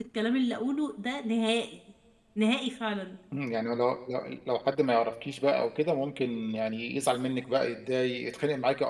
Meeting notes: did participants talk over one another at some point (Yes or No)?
No